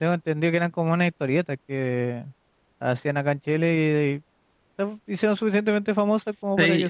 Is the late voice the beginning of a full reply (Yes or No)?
Yes